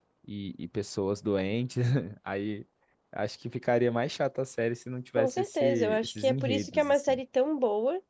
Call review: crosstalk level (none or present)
present